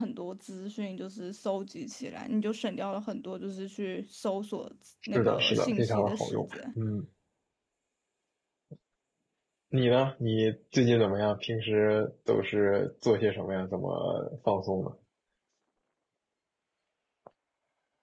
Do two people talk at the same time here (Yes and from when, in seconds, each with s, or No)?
Yes, from 5.1 s